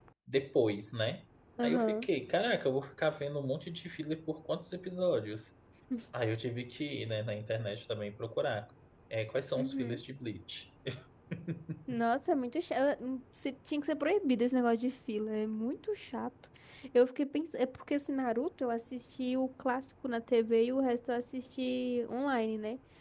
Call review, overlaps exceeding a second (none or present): none